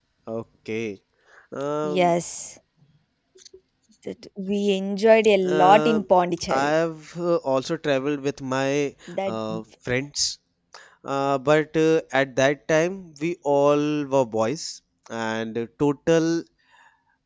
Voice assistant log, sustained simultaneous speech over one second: none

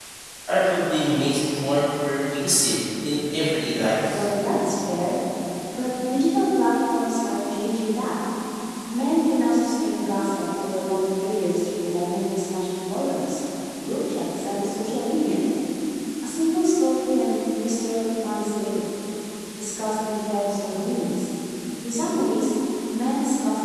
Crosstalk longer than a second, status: none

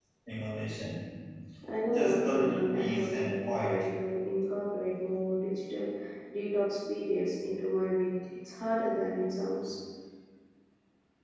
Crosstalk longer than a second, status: present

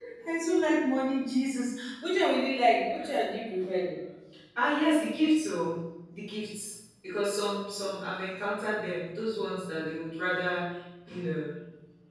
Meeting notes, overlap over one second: none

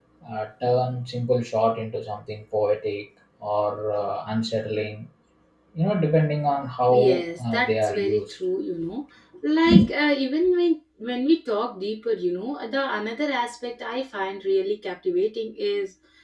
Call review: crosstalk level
present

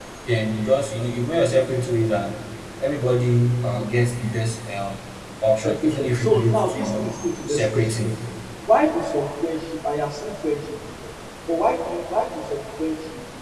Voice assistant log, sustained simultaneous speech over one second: present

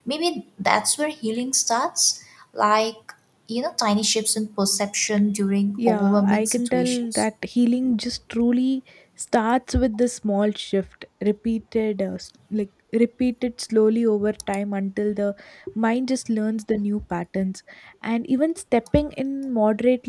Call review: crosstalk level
present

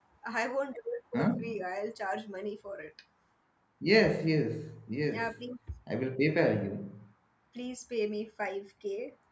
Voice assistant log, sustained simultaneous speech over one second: none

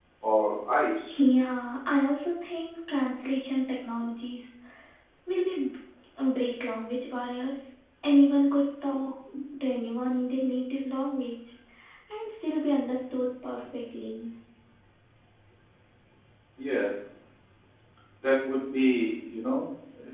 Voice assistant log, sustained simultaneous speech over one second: none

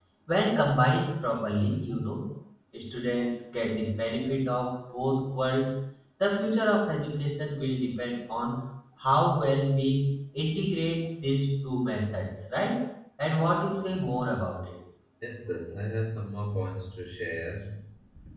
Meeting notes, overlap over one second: none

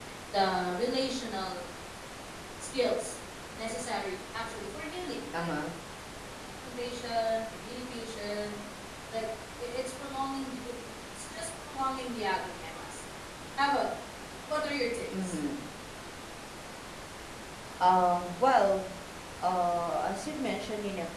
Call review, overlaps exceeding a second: none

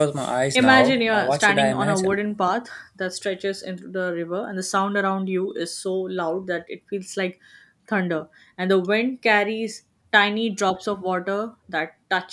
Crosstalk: present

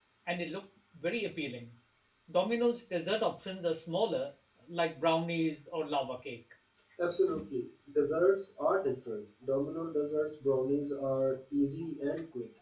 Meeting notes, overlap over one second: none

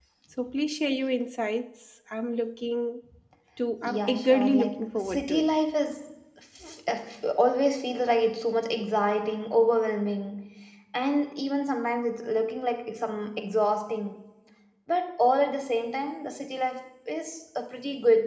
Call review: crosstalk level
present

